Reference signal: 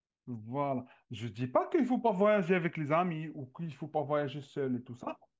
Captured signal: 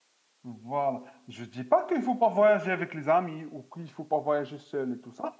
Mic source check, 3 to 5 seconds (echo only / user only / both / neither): echo only